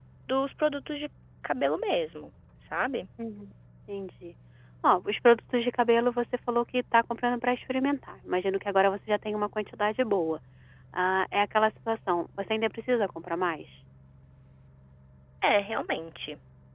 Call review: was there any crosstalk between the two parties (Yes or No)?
No